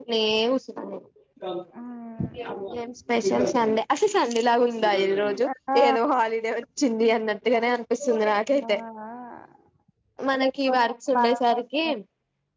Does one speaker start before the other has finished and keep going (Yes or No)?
Yes